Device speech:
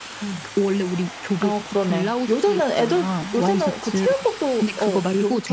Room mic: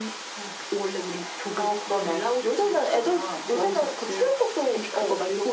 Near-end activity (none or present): none